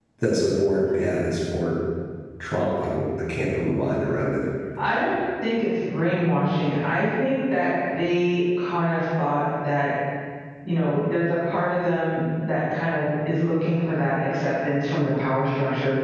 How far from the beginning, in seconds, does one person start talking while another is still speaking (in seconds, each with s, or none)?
none